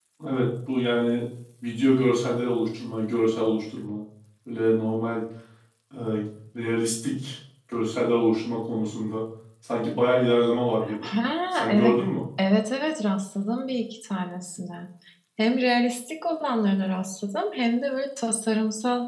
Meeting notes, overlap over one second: none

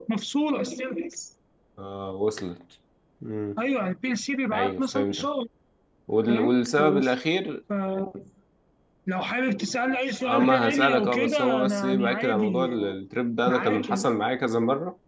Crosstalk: present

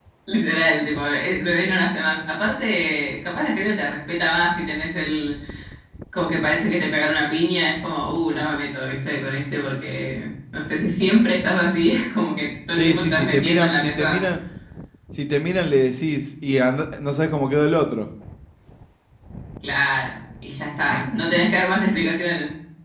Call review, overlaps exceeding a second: present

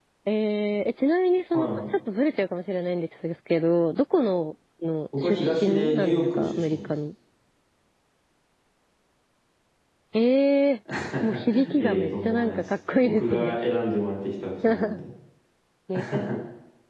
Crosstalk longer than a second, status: present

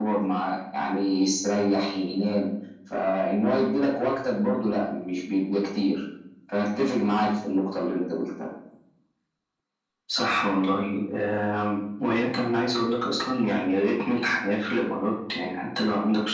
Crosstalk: none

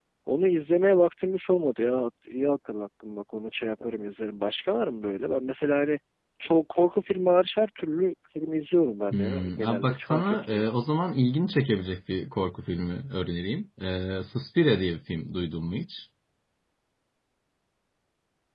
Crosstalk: present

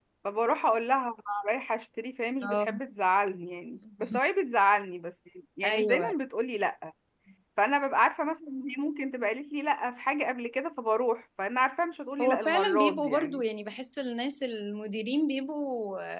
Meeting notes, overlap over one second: present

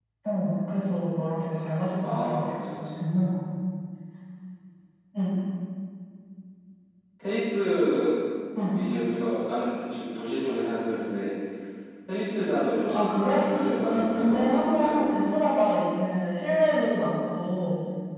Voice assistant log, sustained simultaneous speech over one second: present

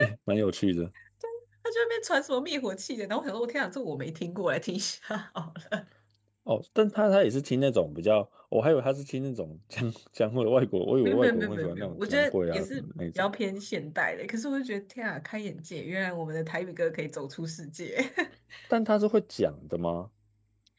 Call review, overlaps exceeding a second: present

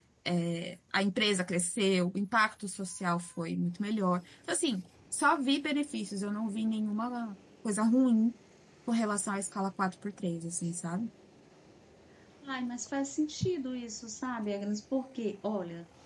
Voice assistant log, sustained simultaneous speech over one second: none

